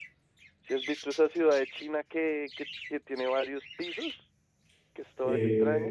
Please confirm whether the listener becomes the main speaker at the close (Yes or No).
Yes